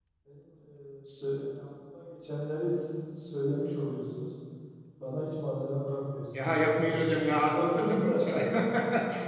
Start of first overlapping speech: 6.3 s

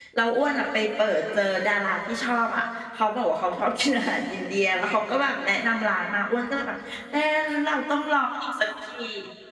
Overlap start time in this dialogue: none

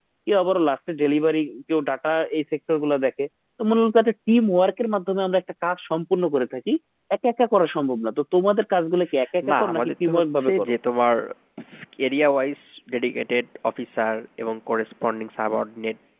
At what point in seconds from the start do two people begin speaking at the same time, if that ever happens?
9.4 s

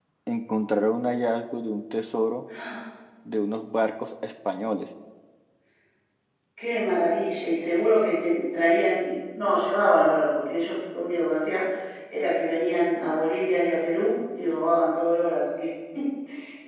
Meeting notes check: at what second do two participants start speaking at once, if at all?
none

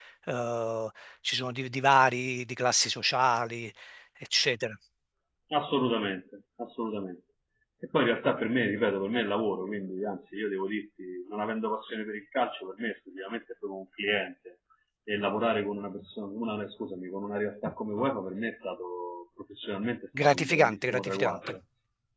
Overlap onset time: 20.1 s

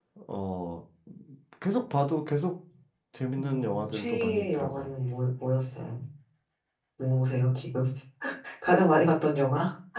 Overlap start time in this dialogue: 3.4 s

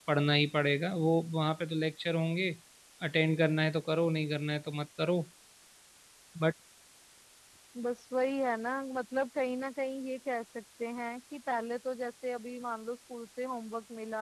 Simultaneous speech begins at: none

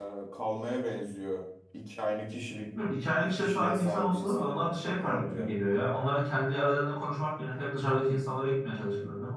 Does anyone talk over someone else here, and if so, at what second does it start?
3.3 s

